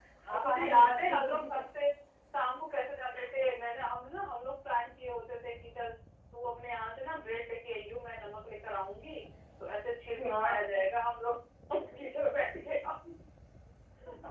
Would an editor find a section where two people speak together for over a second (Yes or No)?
Yes